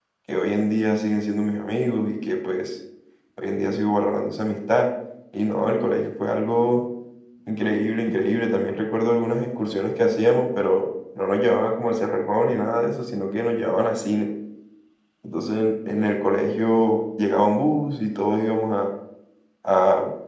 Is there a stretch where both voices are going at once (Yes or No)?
No